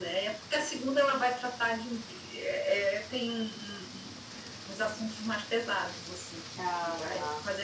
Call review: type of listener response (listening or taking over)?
listening